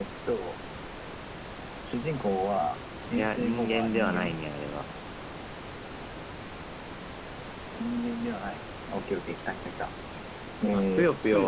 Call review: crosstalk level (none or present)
present